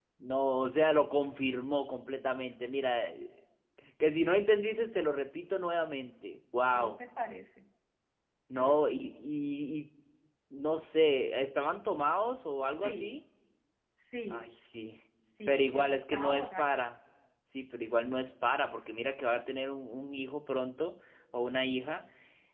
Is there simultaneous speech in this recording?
Yes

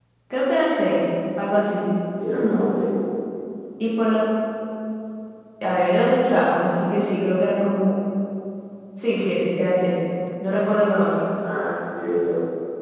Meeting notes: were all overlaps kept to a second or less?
Yes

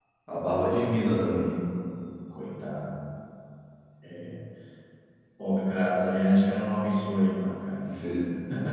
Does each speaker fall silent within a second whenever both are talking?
Yes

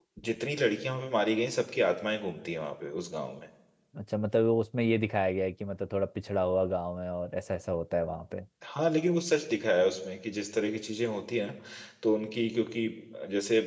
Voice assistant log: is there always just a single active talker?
Yes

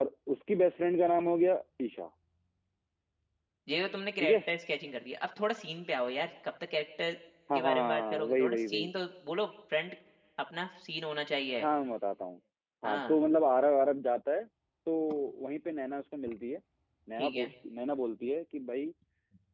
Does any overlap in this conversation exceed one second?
Yes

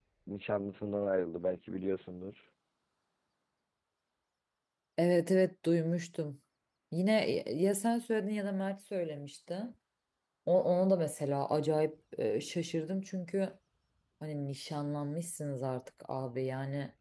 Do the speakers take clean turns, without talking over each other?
Yes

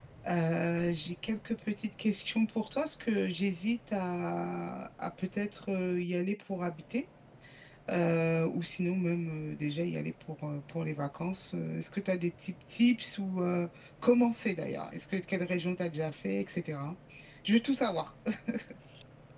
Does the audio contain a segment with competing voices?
No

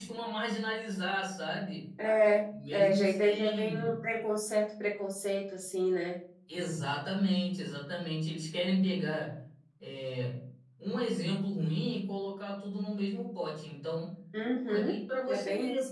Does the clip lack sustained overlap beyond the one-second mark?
No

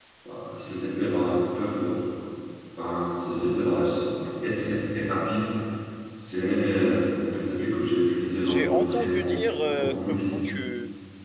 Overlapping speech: Yes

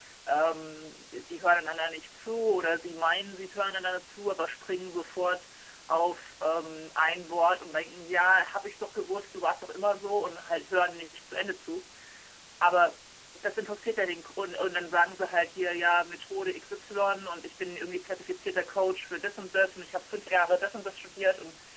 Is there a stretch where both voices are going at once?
No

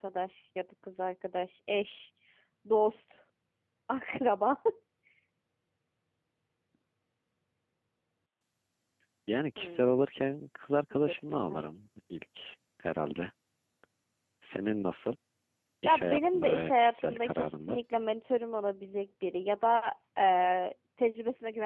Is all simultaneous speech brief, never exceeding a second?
No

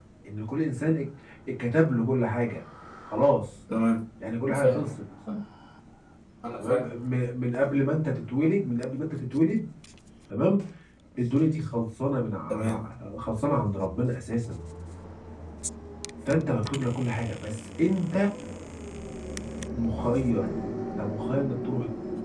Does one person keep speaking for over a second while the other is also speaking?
No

